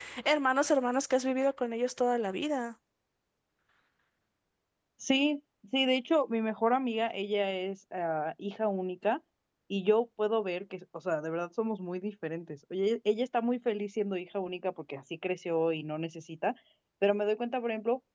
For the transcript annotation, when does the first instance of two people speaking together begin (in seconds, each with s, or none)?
none